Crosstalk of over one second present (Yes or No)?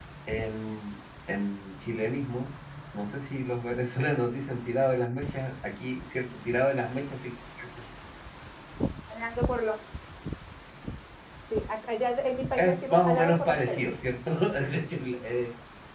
Yes